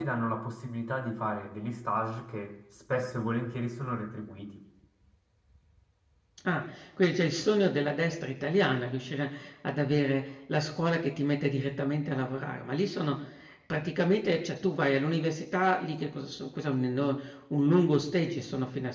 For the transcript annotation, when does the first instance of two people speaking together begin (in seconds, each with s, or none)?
none